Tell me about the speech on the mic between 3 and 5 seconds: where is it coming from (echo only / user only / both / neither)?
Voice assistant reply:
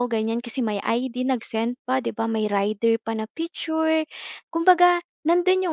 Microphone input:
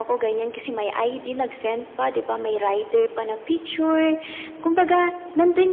echo only